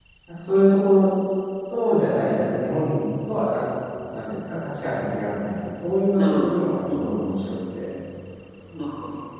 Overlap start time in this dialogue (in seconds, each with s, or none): 6.2 s